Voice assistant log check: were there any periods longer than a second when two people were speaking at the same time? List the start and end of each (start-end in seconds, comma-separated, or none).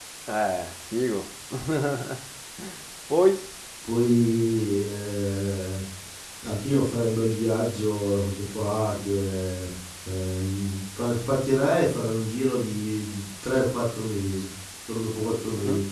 none